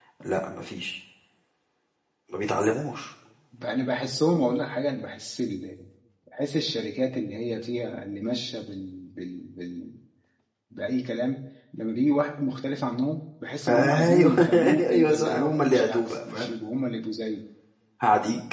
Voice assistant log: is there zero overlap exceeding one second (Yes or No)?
No